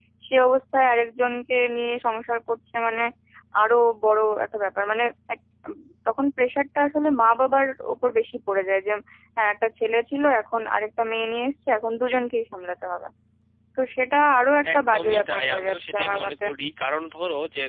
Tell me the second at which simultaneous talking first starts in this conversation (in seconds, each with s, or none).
14.6 s